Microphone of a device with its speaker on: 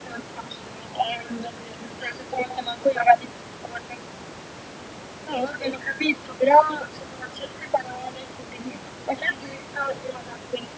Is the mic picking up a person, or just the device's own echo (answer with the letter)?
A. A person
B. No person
B